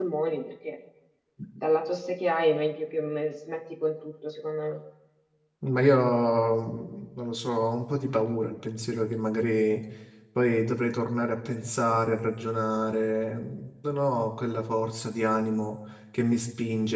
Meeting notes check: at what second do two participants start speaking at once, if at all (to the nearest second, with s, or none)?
none